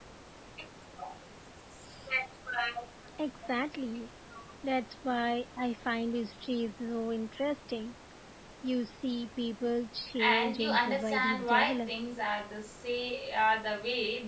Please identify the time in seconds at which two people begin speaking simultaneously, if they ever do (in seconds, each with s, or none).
10.2 s